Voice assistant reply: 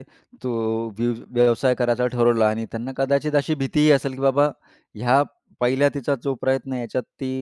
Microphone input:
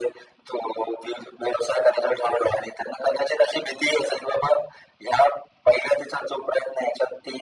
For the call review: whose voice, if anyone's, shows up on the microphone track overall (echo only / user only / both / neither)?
echo only